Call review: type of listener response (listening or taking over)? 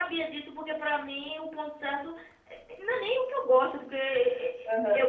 listening